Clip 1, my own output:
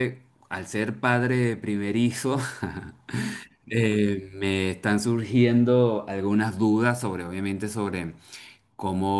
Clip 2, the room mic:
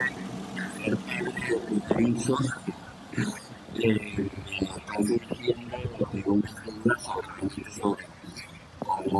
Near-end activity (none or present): none